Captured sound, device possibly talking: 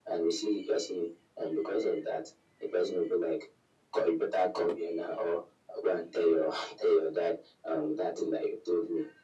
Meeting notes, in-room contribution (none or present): none